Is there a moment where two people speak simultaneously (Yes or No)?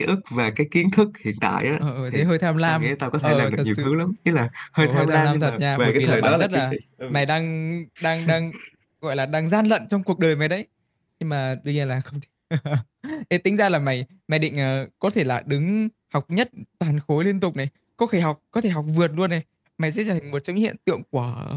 Yes